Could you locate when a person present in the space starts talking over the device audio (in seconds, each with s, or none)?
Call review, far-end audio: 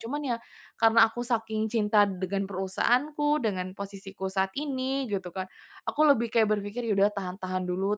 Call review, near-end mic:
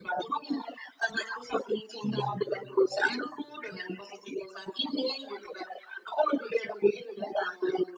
2.0 s